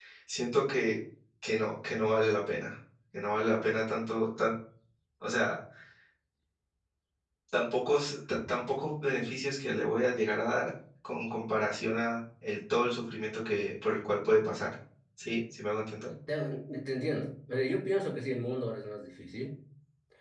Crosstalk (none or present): none